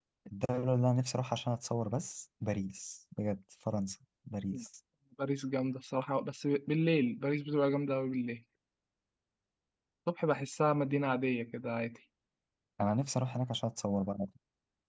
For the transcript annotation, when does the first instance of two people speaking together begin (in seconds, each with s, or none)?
none